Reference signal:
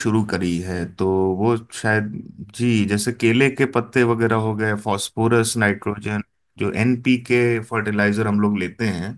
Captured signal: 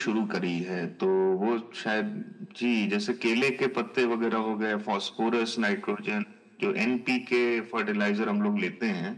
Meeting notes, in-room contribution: none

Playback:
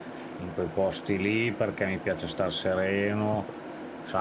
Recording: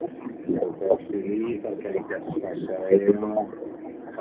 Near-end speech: none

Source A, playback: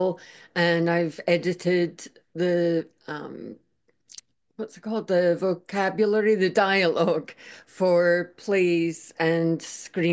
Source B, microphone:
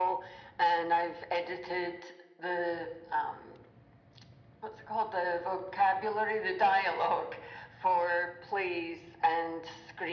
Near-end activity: none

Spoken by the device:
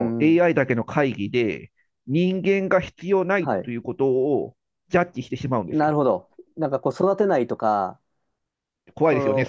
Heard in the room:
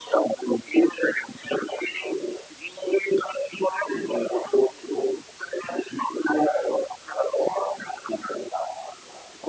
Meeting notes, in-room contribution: none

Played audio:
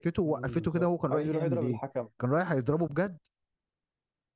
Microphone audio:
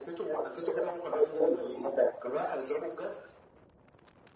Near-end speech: none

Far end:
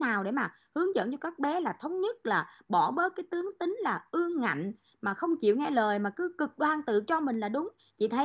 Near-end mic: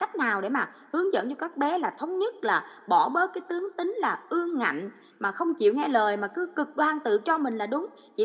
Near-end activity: none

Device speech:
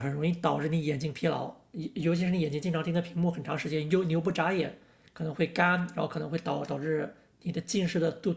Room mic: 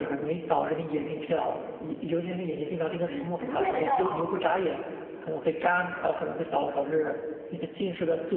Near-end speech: present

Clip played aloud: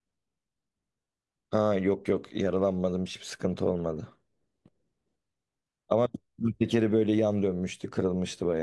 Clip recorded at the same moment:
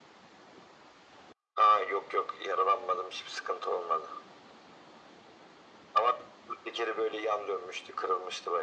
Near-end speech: none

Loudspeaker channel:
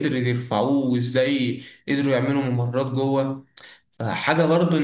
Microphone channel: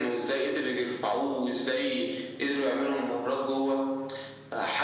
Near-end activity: none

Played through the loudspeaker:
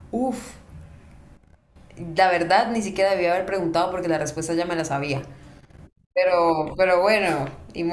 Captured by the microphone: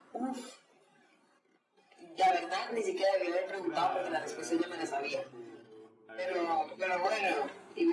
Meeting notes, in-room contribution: present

